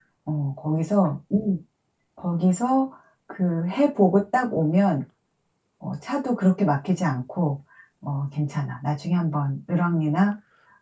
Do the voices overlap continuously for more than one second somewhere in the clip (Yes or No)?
No